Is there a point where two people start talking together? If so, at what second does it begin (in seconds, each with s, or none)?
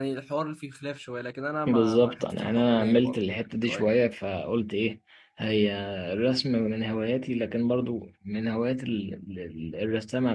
1.7 s